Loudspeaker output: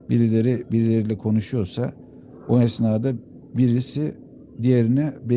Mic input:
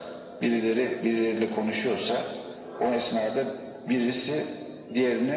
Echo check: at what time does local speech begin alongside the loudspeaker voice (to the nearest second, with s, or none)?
none